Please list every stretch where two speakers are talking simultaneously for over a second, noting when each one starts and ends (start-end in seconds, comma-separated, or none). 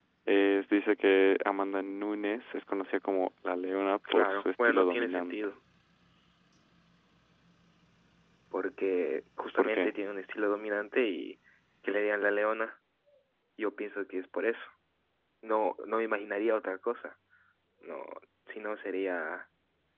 4.1-5.3